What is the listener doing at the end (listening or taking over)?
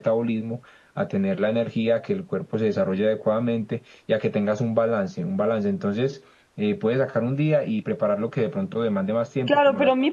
taking over